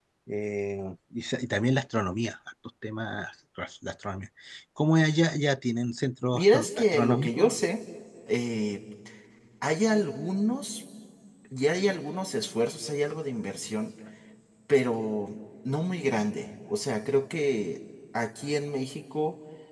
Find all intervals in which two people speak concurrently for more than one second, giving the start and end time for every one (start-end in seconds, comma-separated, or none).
6.3-7.5